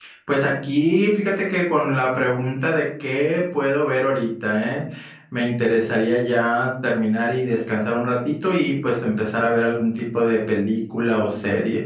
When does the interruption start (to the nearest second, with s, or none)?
none